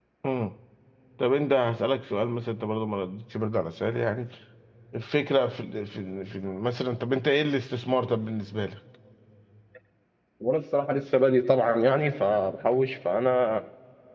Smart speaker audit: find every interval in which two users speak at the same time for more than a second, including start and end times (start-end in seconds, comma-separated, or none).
none